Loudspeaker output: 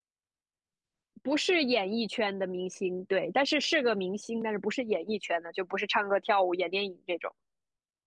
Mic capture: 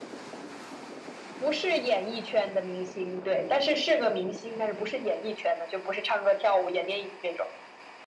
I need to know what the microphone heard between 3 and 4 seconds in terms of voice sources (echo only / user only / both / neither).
echo only